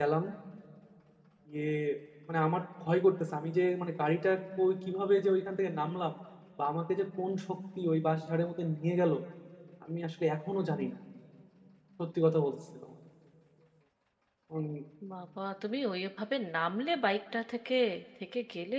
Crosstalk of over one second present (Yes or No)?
No